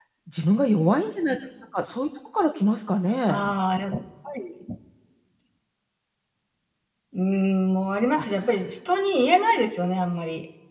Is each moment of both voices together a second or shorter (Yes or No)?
Yes